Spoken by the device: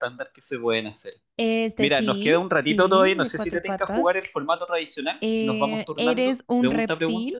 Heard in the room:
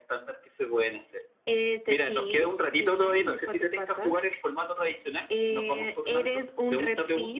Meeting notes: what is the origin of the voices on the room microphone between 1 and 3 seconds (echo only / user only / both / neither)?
echo only